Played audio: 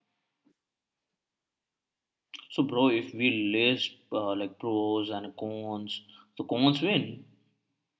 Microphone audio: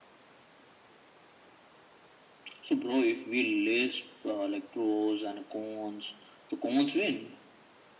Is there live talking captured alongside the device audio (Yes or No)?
No